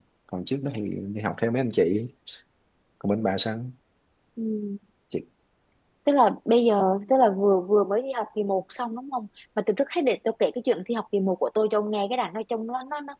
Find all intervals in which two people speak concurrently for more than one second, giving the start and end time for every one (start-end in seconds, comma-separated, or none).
none